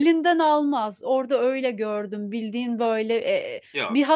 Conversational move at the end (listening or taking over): listening